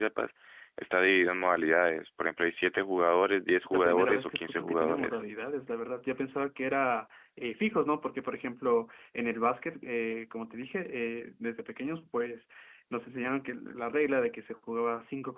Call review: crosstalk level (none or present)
present